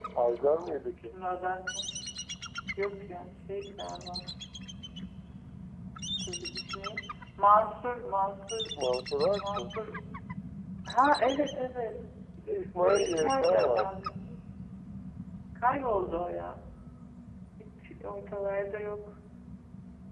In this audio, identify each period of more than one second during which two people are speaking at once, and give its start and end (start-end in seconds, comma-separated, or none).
12.8-14.0